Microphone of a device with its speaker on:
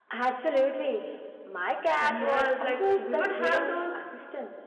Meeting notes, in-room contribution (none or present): none